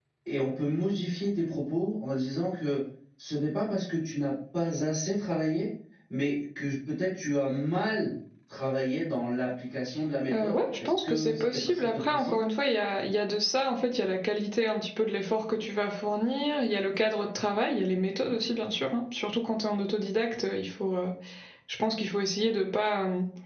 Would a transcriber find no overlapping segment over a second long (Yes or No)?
No